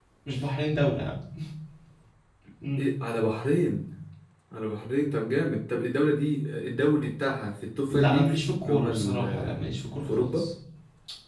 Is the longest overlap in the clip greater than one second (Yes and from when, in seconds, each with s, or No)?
Yes, from 7.9 s